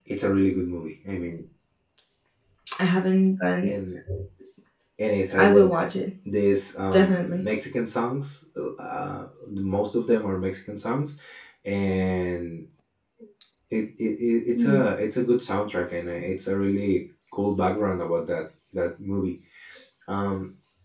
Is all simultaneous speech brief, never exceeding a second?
Yes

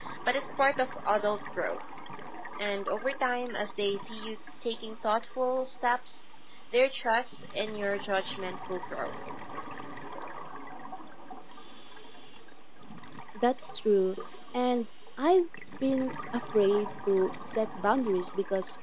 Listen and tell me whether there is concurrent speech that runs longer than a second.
No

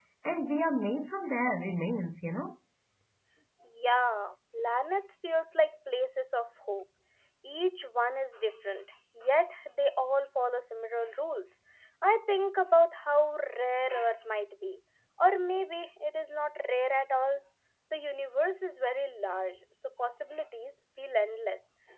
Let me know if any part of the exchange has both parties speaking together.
No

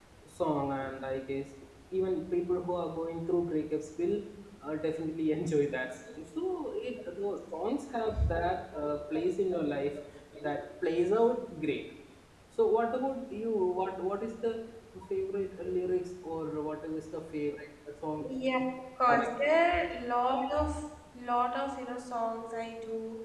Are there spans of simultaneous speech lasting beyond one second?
No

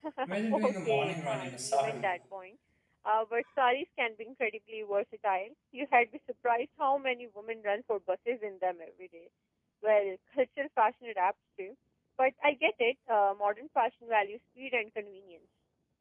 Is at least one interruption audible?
Yes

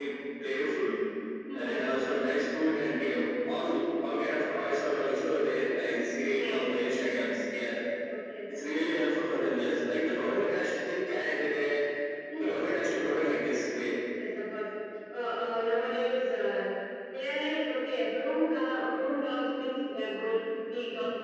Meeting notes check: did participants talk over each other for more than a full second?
No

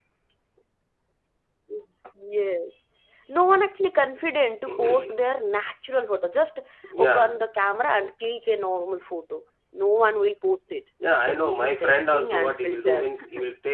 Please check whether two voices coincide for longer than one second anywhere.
Yes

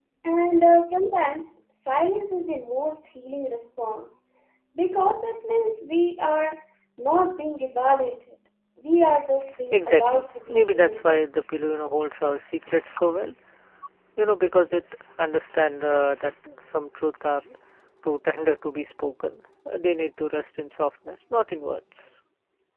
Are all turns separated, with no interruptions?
No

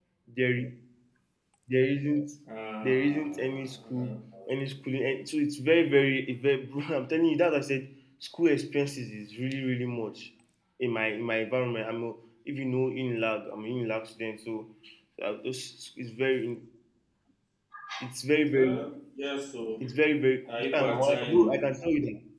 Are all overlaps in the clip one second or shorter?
No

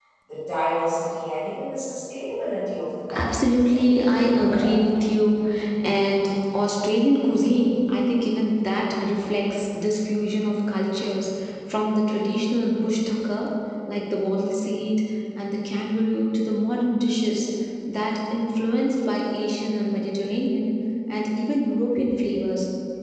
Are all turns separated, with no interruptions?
No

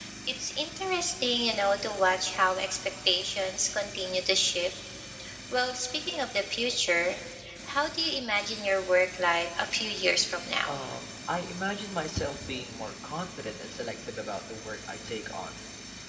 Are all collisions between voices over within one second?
Yes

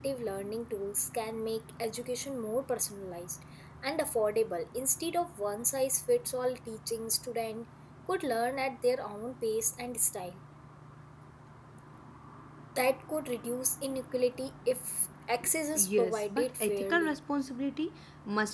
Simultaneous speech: Yes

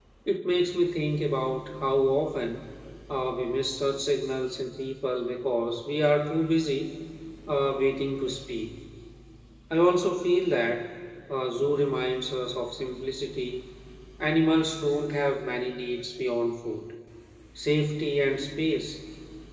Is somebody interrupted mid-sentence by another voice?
No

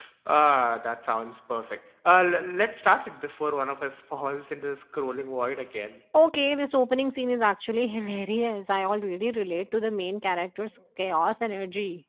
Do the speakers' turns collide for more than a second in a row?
No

